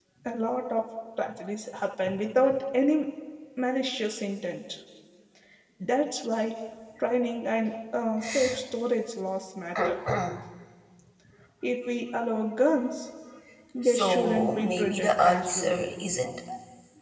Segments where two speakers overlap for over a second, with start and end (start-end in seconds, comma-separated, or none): 13.8-15.8